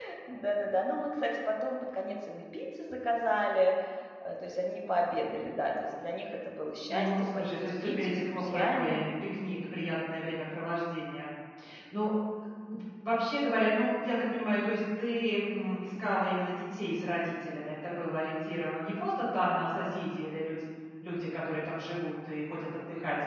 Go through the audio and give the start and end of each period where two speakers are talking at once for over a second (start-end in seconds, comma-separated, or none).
6.9-9.0